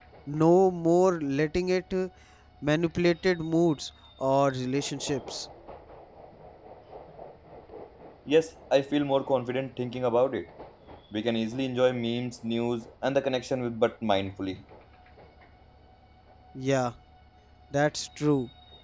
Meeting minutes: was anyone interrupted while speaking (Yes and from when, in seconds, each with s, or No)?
No